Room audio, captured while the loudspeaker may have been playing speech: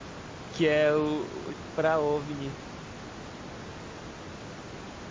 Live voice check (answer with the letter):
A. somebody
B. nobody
A